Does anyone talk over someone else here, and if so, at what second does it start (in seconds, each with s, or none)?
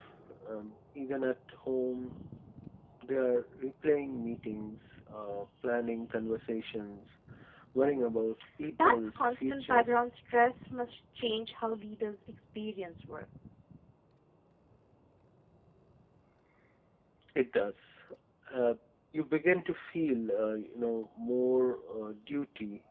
8.7 s